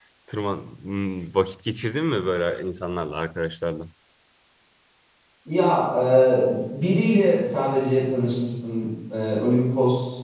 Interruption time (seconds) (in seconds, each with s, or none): none